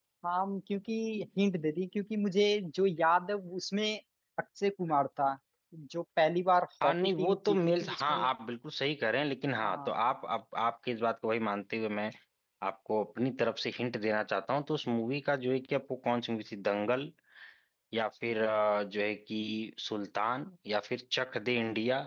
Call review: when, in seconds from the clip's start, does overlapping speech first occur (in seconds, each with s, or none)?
6.8 s